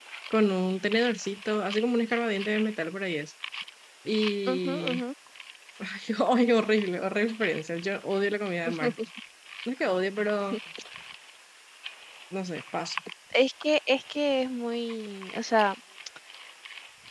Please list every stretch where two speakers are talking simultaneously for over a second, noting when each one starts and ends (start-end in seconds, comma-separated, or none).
none